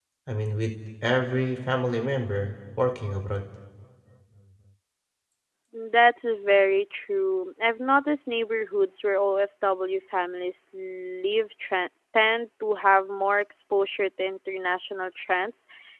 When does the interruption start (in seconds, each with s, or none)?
none